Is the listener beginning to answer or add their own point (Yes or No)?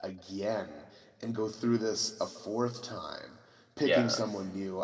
No